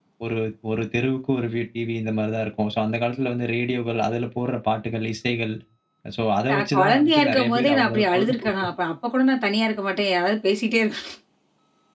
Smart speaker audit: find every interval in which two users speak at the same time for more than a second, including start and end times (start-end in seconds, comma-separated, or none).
6.5-8.6